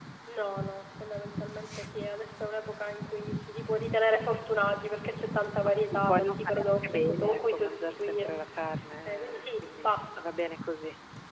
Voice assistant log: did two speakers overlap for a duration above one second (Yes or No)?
Yes